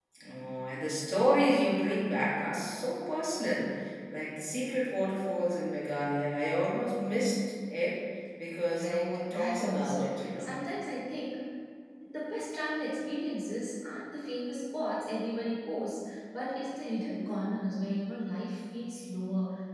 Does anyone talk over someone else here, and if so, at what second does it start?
8.8 s

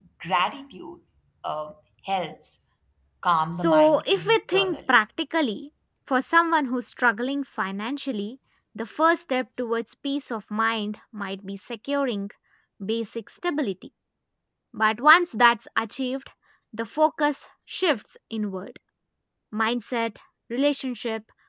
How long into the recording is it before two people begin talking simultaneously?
3.5 s

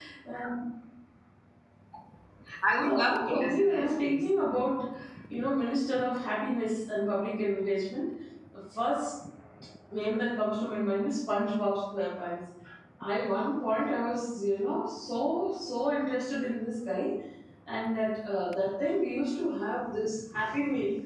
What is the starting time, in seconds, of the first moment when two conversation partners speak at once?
2.8 s

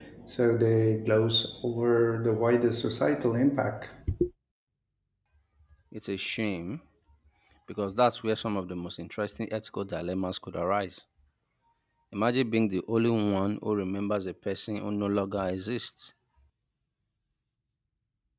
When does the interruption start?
none

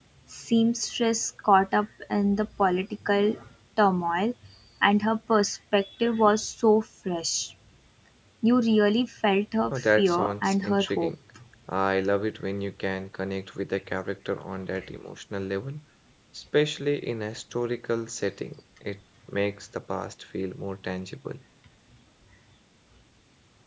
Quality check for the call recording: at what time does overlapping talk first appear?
9.7 s

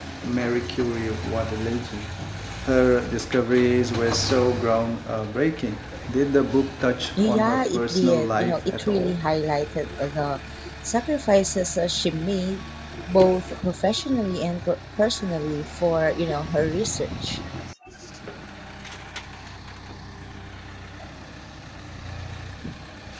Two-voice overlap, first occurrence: 7.2 s

